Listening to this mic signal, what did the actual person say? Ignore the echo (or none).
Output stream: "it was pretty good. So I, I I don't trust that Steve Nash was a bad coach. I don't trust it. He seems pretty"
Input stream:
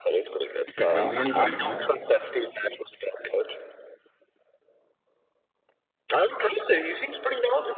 You pick literally anybody, man.